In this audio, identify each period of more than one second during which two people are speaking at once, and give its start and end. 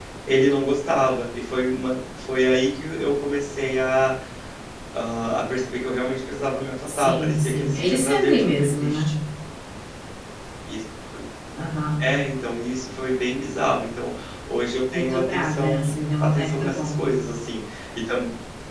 6.9-9.1, 14.9-17.0

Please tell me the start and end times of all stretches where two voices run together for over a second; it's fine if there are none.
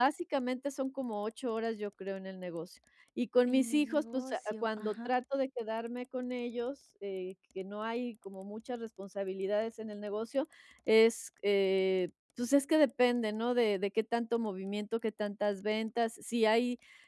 3.5-5.1

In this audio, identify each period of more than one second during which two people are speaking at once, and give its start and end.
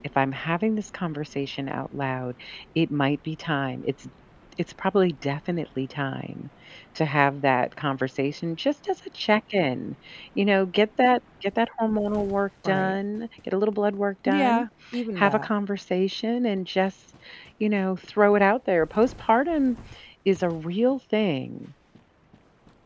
none

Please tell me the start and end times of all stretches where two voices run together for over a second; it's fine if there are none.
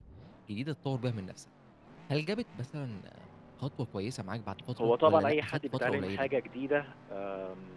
4.8-6.3

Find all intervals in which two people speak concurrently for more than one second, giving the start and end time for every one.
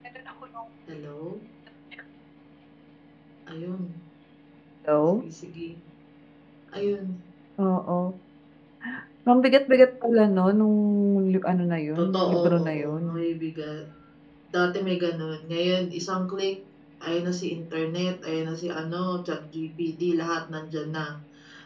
12.0-13.3

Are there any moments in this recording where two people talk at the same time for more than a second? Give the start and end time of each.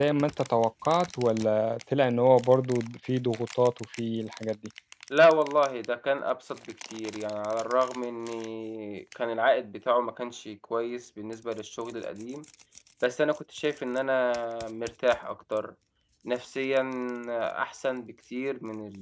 none

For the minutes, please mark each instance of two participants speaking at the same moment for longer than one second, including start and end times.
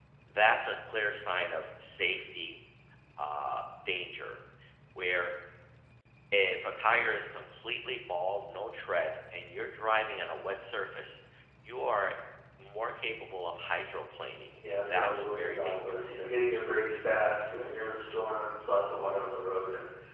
14.7-16.2

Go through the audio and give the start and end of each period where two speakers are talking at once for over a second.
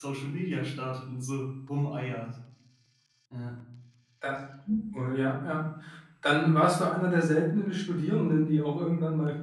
none

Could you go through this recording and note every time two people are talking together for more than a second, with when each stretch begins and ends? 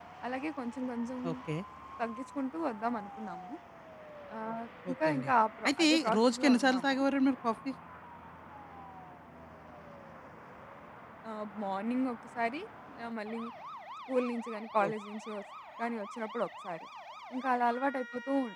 5.7-7.0

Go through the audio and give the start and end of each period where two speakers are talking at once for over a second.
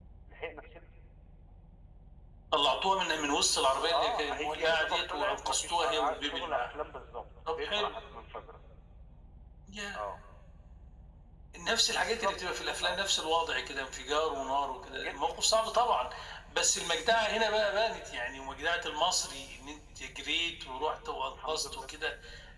3.8-6.7

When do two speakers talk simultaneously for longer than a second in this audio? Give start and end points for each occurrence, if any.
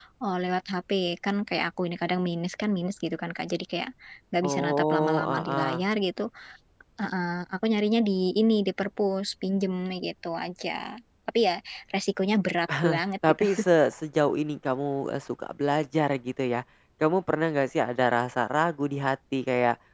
4.4-5.8

